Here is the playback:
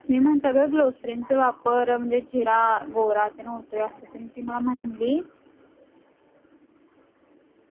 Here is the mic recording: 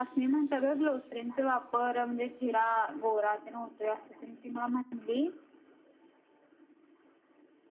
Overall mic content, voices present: echo only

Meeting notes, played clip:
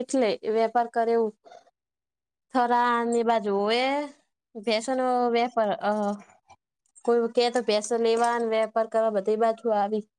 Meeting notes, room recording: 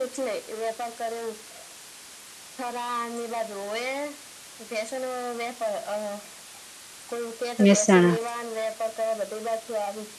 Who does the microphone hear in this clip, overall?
both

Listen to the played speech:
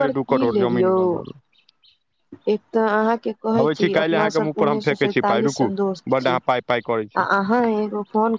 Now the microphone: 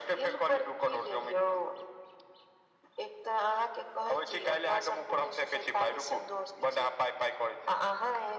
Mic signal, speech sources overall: echo only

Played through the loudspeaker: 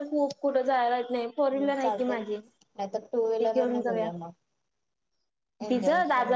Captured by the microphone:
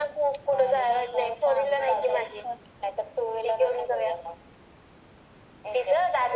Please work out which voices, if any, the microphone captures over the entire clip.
both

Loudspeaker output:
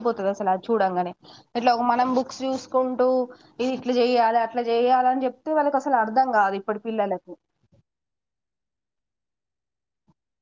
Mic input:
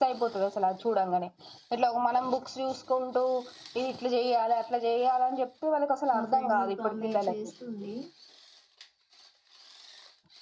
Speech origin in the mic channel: both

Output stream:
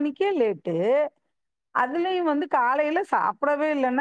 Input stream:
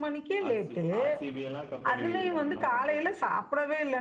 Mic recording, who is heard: both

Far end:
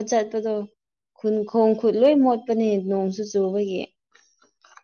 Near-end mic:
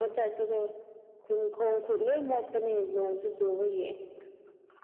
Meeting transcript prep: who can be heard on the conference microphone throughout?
echo only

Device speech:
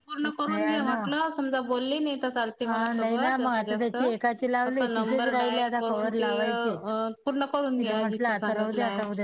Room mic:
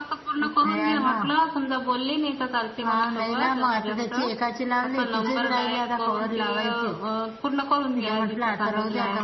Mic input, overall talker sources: echo only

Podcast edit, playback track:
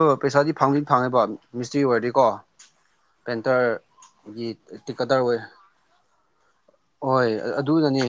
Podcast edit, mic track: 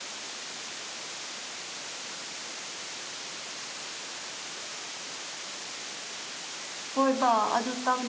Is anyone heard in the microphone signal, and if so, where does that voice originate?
user only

